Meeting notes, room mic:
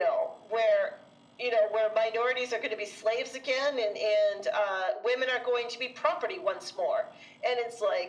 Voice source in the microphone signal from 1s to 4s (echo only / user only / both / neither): echo only